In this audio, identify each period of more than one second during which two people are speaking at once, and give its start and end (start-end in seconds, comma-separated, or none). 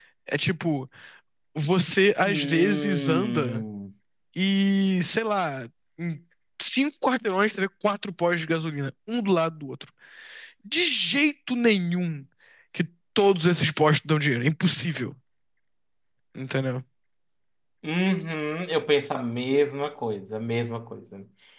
2.2-3.6